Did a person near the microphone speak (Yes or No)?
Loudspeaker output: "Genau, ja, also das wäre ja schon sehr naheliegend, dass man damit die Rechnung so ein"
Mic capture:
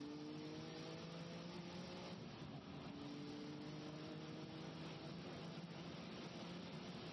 No